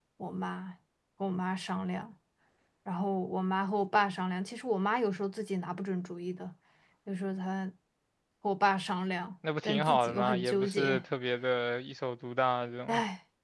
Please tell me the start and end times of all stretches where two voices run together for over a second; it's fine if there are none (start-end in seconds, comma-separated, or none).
9.6-11.0